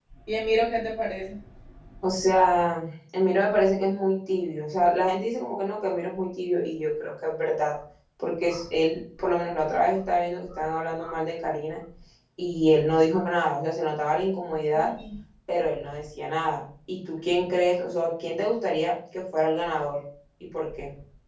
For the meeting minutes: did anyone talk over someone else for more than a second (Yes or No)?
No